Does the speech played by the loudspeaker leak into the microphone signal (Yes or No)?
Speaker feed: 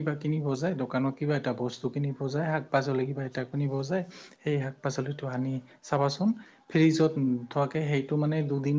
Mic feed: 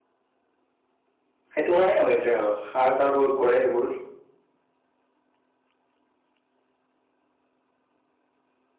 No